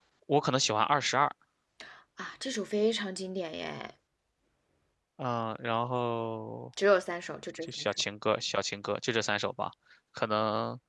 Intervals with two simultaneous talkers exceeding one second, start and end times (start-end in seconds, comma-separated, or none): none